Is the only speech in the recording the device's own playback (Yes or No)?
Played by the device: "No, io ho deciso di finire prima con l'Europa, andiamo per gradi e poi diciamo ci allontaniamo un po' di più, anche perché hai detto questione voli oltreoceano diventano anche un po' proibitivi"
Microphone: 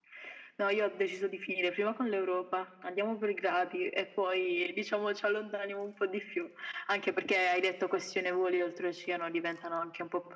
Yes